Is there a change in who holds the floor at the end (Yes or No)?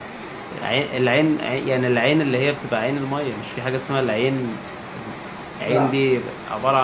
No